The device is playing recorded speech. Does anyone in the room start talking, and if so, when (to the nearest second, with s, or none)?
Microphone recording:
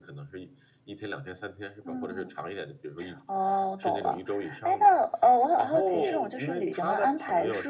none